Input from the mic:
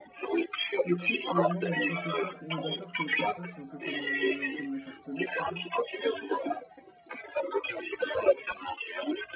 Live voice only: écoute, euh, moi, mon processeur, on est d'accord que le processeur, c'est un peu comme, euh, comme la carte mère, c'est ça?

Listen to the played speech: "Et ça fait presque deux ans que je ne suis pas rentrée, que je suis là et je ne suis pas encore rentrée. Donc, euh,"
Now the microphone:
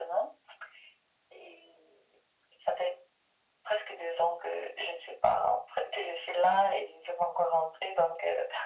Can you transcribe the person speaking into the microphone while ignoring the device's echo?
none

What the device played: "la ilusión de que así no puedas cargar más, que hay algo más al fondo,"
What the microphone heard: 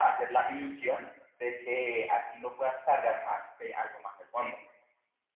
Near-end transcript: none

